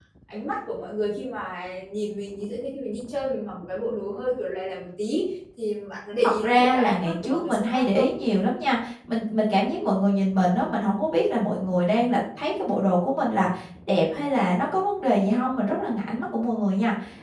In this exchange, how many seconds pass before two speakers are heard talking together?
6.2 s

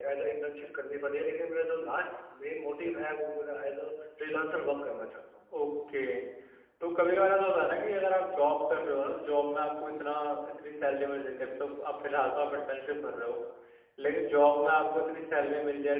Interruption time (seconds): none

